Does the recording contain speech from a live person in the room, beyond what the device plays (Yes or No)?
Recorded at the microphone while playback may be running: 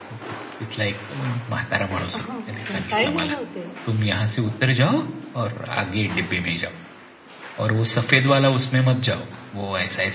Yes